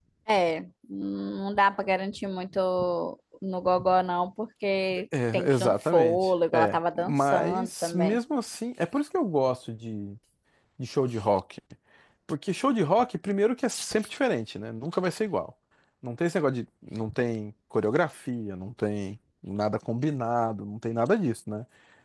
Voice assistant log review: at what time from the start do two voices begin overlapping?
5.1 s

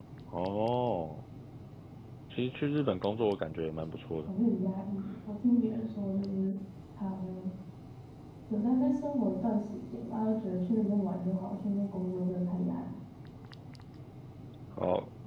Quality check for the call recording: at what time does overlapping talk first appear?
none

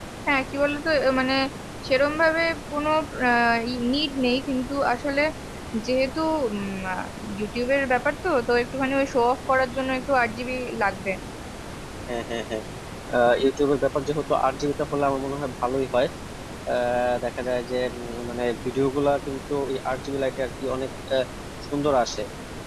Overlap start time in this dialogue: none

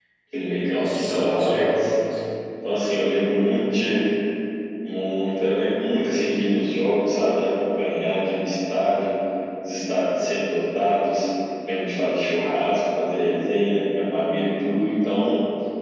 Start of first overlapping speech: 0.7 s

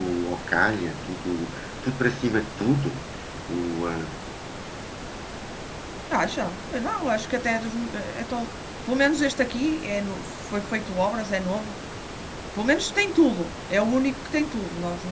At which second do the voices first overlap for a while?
none

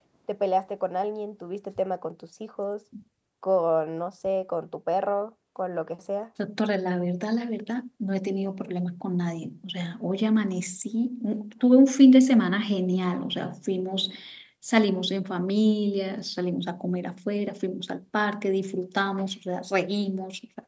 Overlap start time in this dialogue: none

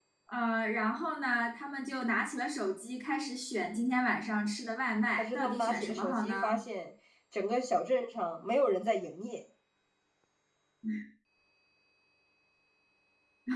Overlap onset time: 5.2 s

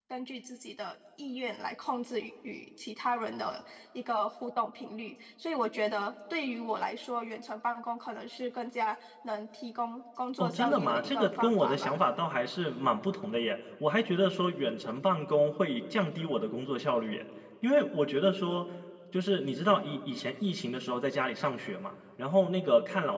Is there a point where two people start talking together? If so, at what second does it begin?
10.4 s

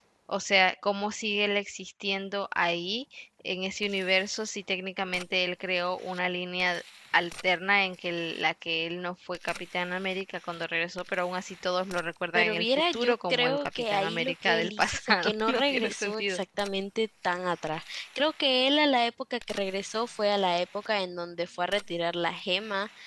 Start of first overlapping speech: 12.4 s

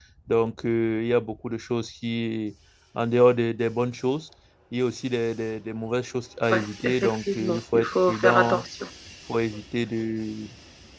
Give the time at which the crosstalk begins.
6.5 s

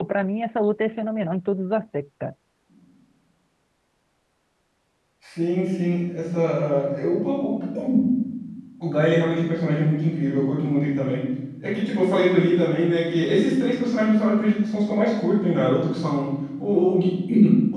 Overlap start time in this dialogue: none

